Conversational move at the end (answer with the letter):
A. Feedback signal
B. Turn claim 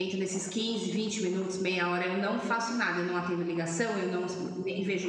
A